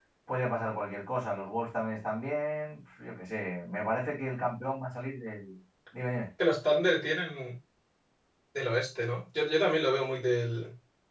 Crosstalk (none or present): none